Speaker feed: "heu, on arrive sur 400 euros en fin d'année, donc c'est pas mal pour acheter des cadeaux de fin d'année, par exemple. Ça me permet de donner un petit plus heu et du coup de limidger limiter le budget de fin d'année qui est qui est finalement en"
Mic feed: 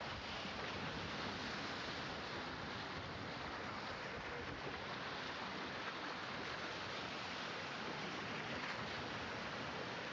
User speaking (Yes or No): No